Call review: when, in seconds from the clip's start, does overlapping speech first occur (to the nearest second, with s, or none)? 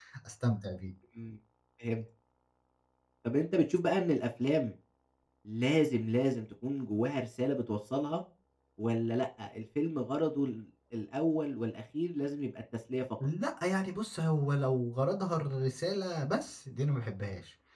none